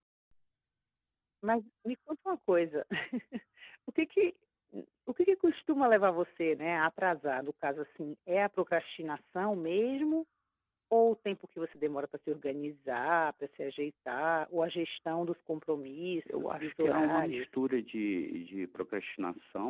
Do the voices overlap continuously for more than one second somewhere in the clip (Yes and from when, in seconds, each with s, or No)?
Yes, from 16.3 s